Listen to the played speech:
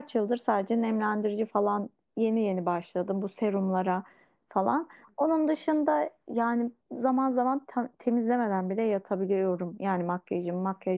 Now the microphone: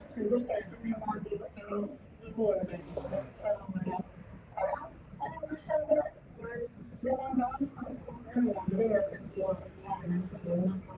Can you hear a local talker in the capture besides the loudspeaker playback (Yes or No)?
No